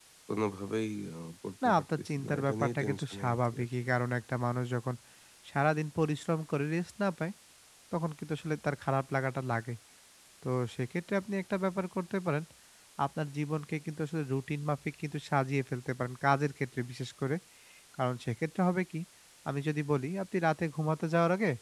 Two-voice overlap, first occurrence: 2 s

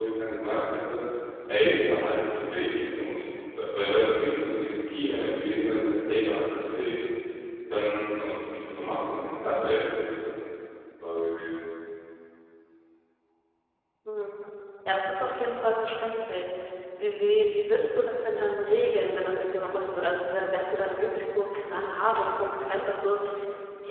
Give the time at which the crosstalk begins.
none

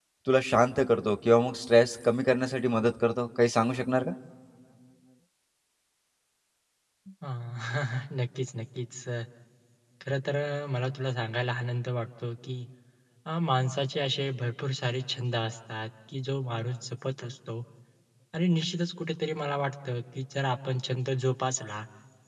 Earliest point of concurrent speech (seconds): none

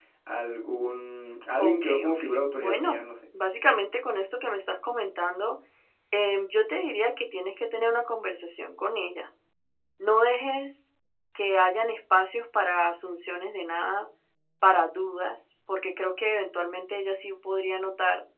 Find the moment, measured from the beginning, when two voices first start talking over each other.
2 s

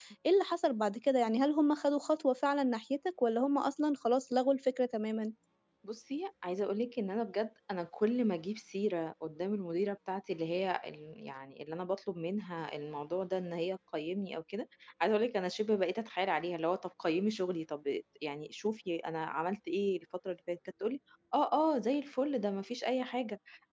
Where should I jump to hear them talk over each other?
none

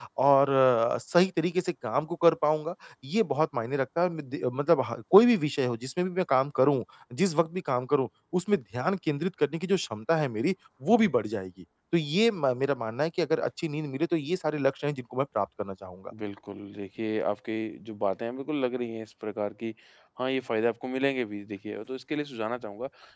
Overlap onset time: none

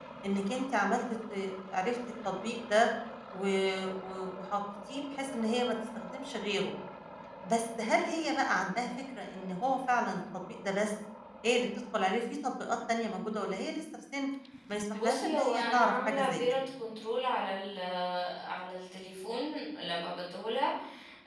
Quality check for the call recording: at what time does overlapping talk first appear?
15 s

